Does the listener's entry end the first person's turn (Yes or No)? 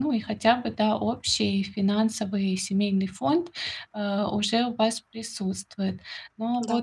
No